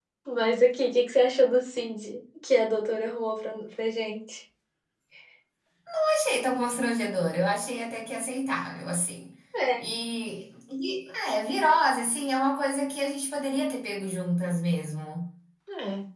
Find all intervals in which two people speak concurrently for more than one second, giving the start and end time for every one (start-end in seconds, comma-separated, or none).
none